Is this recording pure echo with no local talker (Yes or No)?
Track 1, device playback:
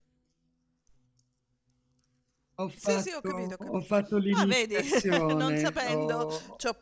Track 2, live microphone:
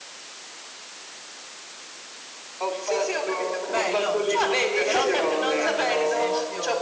No